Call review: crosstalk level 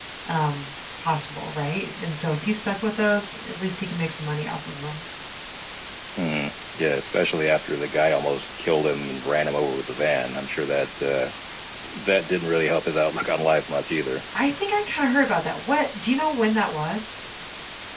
none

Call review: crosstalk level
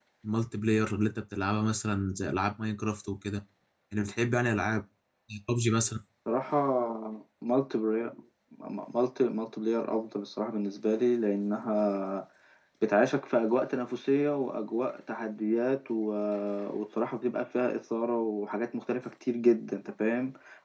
none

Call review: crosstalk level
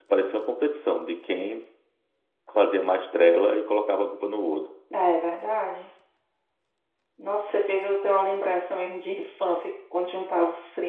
none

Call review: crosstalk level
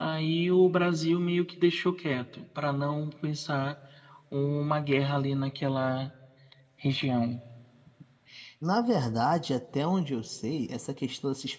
none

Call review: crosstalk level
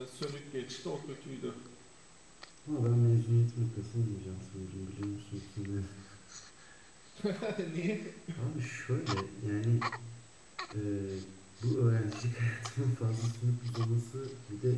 none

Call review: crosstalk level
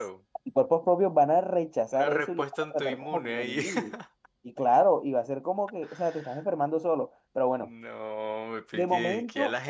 present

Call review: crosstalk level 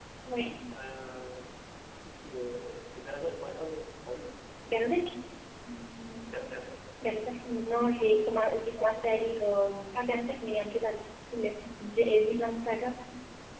none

